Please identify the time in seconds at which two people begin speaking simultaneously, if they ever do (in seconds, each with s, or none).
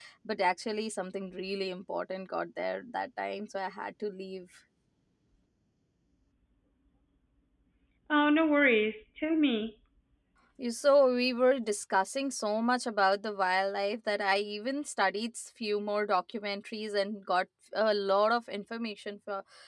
none